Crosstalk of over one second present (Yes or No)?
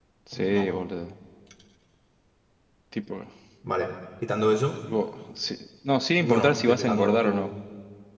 Yes